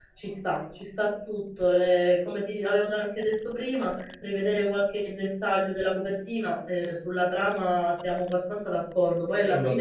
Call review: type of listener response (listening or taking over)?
taking over